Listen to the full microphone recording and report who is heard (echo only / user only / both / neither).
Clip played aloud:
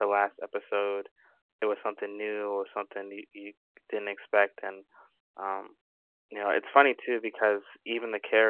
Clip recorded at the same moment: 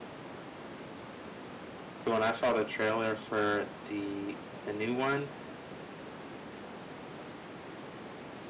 user only